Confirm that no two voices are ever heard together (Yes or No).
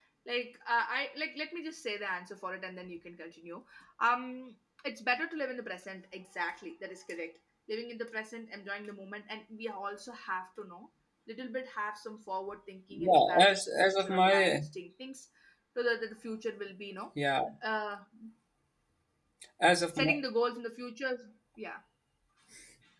No